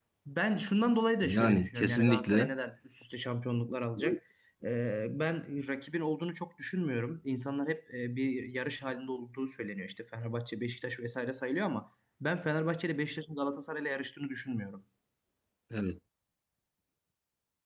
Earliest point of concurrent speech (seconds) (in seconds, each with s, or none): 1.2 s